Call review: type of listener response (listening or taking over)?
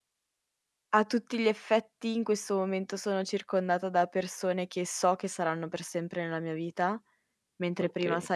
listening